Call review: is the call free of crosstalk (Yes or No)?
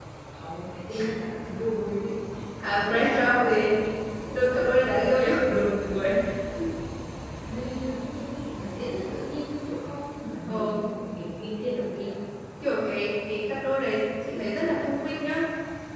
No